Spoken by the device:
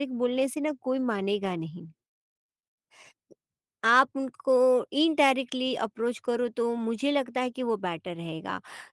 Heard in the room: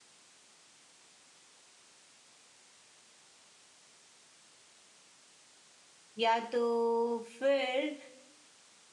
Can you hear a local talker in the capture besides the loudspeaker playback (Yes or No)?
Yes